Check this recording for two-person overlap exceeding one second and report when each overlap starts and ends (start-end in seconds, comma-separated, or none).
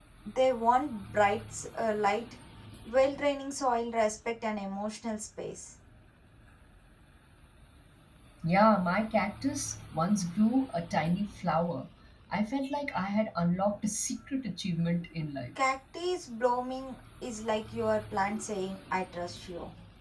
none